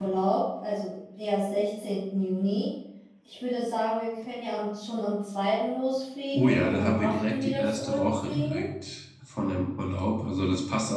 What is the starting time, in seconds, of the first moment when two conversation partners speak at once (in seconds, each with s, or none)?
6.3 s